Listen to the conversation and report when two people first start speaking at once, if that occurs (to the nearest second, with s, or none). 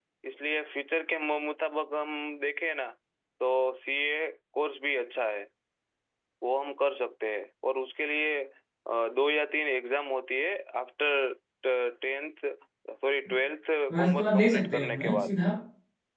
14 s